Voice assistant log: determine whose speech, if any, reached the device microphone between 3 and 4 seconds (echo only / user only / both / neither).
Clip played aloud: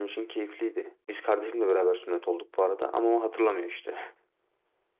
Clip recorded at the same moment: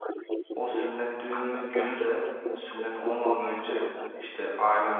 both